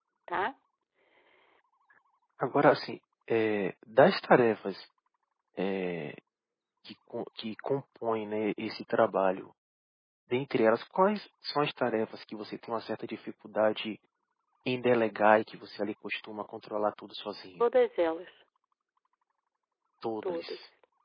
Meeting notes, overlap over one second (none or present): none